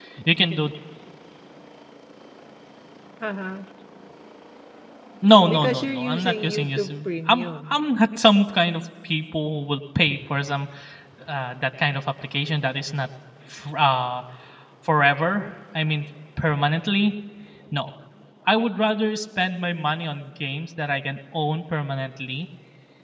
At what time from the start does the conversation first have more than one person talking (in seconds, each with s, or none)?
5.5 s